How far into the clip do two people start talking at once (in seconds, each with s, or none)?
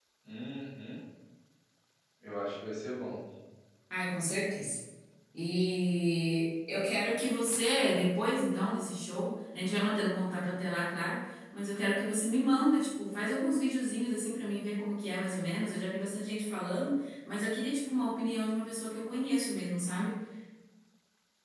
none